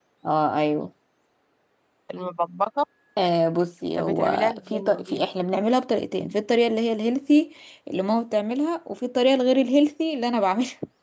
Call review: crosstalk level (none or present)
present